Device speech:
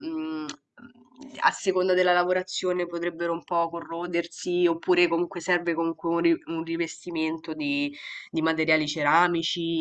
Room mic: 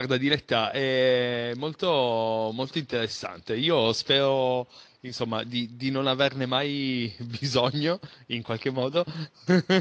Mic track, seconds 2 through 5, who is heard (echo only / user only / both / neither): user only